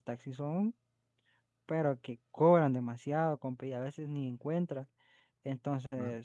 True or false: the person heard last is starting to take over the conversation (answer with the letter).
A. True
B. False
B